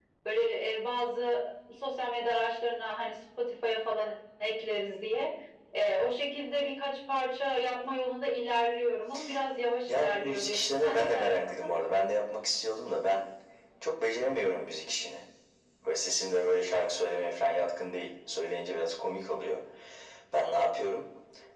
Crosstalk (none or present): present